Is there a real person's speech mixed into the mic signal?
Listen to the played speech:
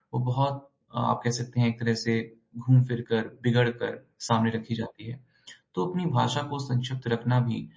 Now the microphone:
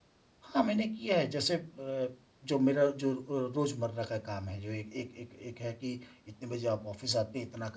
Yes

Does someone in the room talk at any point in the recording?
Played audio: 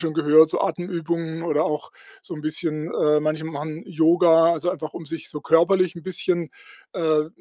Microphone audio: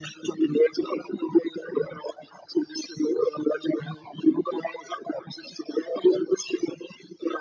No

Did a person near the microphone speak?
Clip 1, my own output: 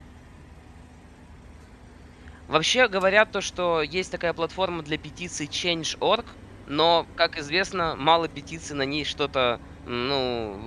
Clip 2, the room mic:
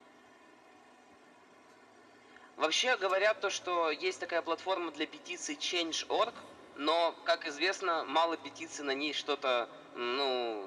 No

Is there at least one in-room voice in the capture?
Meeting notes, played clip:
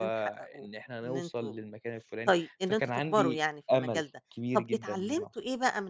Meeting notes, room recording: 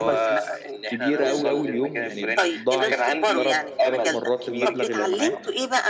Yes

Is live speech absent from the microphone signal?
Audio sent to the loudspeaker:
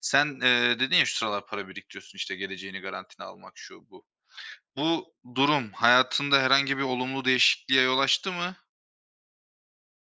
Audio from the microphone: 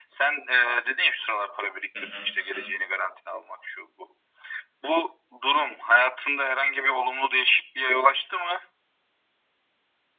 No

